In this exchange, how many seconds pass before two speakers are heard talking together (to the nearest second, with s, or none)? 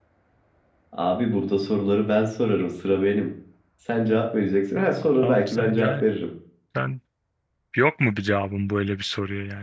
5 s